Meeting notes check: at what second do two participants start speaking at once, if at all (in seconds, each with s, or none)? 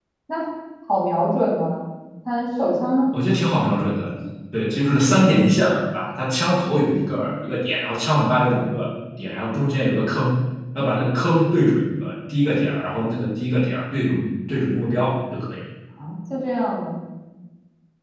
none